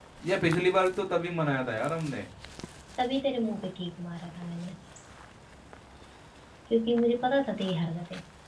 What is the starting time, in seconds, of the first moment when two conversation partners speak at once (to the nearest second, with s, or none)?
none